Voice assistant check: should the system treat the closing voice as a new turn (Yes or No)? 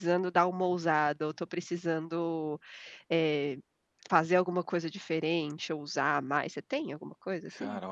Yes